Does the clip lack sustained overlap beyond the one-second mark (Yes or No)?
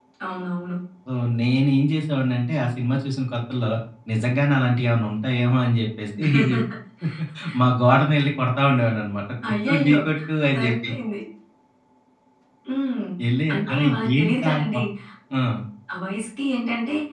No